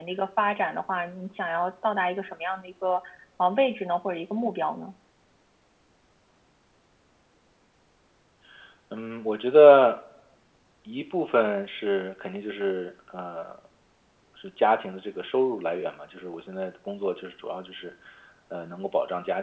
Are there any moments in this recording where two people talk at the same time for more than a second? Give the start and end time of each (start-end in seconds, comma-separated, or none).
none